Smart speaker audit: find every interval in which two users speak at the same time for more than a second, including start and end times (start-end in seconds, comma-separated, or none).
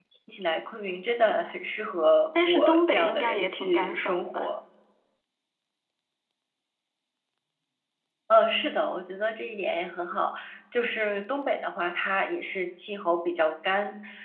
2.5-4.5